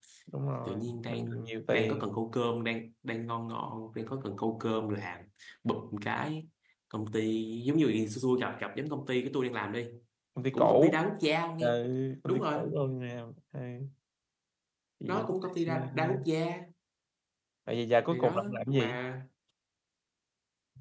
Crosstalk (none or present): present